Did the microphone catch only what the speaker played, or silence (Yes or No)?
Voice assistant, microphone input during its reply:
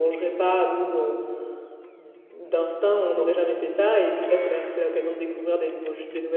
Yes